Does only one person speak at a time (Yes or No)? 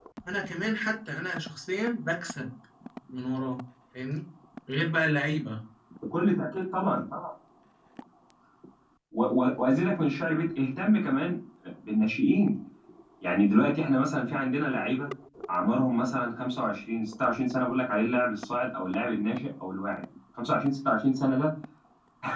Yes